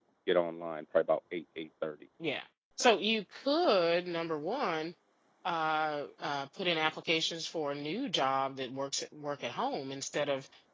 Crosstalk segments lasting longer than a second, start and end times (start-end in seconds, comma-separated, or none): none